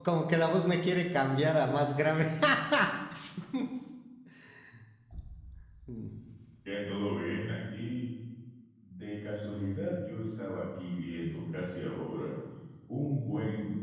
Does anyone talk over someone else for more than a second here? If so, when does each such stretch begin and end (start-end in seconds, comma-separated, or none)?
none